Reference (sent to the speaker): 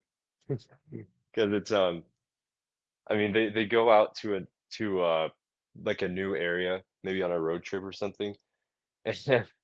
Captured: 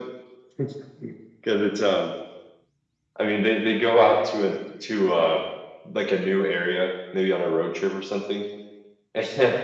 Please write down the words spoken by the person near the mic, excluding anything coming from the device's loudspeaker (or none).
none